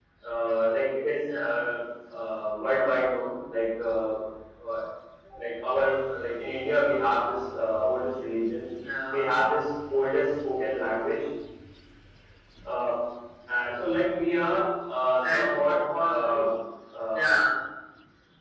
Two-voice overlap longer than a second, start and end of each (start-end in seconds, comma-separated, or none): 15.2-16.5